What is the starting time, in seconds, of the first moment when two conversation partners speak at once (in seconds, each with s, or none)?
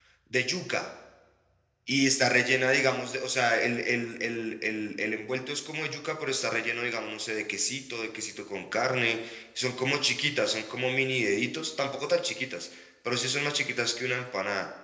none